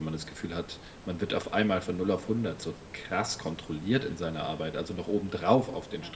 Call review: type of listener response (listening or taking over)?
listening